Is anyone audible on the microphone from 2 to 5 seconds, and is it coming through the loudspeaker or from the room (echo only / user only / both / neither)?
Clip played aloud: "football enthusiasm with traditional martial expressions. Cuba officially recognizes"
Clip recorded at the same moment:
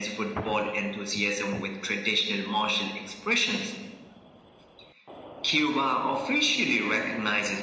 echo only